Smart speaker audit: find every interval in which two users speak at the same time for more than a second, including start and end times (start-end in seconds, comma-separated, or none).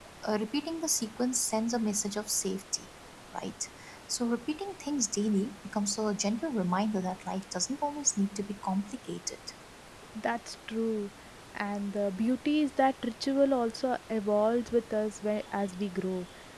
none